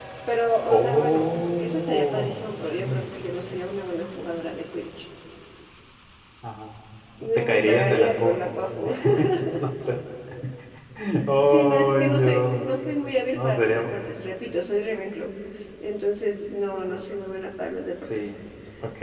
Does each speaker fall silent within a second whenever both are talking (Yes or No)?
No